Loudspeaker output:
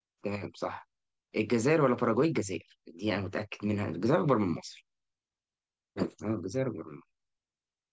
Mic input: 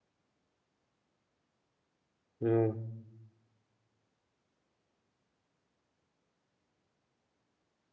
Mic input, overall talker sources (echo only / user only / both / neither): user only